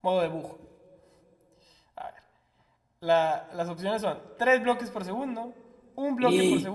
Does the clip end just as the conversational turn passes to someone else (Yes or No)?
No